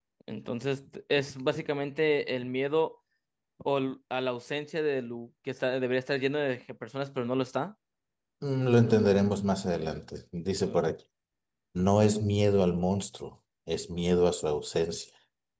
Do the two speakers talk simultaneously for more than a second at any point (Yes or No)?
No